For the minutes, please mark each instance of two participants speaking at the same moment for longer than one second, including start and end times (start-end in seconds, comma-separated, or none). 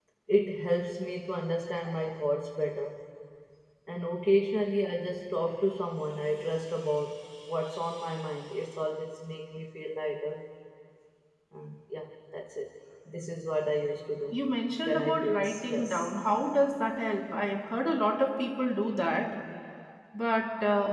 14.8-16.1